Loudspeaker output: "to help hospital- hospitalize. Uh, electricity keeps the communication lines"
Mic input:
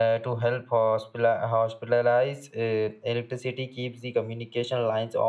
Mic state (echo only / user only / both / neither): echo only